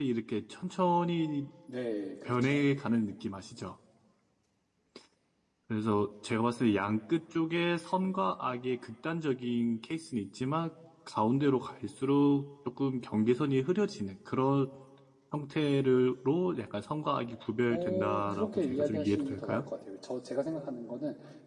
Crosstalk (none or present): present